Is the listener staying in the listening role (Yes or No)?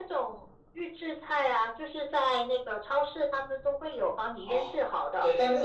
No